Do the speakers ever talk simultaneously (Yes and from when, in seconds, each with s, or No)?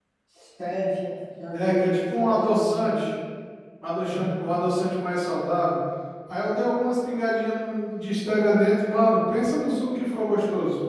Yes, from 1.5 s